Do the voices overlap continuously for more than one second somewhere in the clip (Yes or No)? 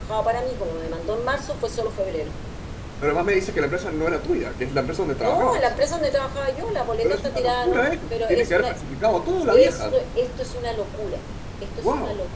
Yes